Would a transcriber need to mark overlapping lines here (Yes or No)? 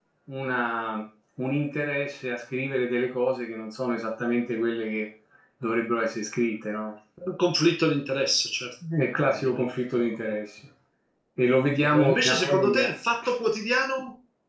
Yes